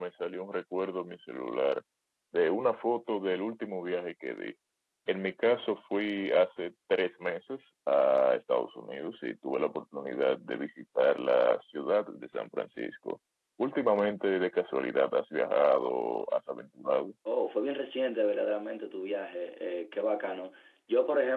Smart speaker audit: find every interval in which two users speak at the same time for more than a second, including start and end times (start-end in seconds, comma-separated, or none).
none